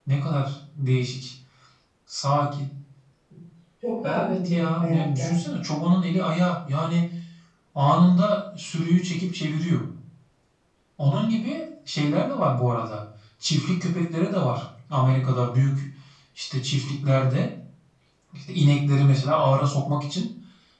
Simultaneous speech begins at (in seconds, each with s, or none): 4.0 s